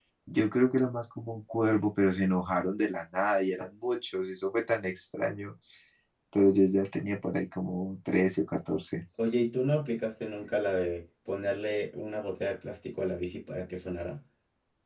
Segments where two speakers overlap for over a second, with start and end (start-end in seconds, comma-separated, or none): none